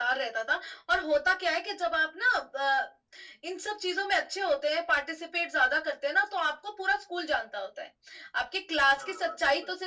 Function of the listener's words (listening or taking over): listening